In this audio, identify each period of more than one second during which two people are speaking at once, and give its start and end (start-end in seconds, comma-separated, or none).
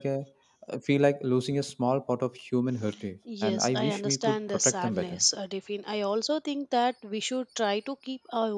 3.4-5.2